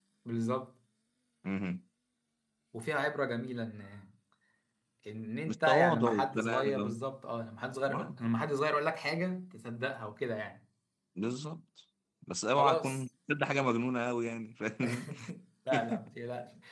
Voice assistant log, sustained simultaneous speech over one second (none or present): present